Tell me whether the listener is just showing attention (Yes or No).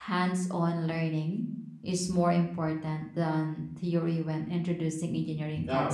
No